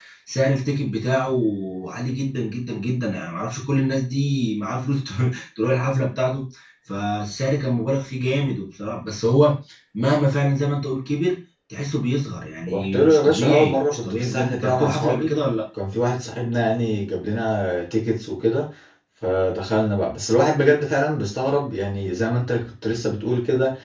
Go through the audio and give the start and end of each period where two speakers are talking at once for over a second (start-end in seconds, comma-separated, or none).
12.7-15.3